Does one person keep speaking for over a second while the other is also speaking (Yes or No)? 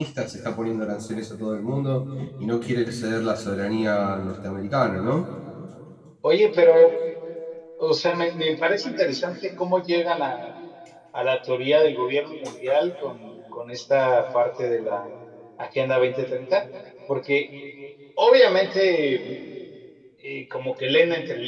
No